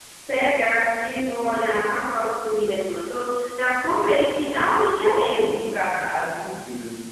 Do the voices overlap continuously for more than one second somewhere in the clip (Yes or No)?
No